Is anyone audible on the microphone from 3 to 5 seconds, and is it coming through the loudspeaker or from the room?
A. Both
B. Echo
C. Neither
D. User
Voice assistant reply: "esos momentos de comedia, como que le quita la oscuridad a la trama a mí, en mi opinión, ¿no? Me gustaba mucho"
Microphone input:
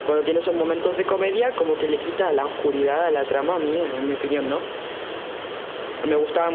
B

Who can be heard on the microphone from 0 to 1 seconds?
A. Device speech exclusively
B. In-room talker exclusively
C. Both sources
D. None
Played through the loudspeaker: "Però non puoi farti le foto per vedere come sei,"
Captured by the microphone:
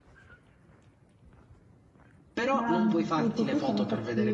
D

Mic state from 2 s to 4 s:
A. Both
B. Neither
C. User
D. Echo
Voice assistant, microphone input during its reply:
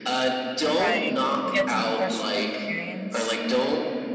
A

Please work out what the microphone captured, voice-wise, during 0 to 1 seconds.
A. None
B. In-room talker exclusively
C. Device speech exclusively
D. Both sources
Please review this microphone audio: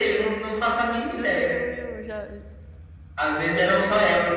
C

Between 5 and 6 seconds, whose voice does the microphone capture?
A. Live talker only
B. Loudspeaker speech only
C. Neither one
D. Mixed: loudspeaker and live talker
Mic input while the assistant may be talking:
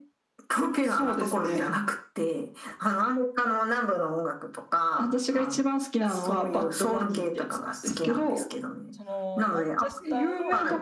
B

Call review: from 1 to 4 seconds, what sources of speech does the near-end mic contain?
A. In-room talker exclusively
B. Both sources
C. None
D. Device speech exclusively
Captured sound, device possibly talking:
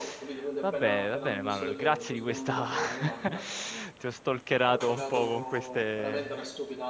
B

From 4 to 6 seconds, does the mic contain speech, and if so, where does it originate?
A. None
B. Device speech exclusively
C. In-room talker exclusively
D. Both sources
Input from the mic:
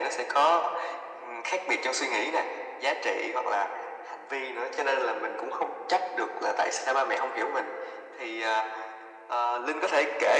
B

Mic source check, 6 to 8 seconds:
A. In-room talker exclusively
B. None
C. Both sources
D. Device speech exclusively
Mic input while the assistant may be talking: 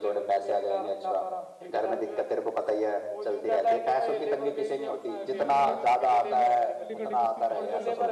C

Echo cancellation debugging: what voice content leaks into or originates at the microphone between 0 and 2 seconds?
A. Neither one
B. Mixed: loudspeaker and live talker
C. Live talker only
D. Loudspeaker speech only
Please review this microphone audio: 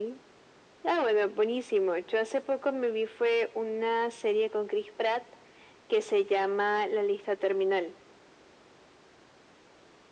D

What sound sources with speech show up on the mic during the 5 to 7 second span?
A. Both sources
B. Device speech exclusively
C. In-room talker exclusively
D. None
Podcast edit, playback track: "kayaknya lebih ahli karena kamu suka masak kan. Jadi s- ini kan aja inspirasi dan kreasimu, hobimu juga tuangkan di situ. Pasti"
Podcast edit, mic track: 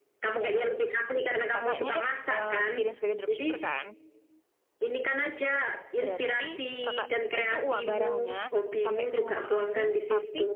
A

